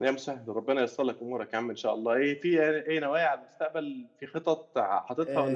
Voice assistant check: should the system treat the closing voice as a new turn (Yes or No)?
Yes